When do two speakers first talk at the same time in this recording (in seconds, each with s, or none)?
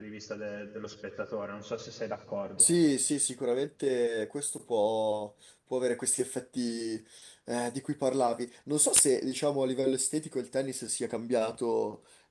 none